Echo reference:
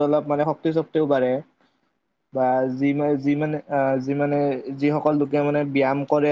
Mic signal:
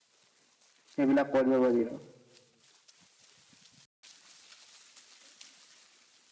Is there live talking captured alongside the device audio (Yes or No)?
Yes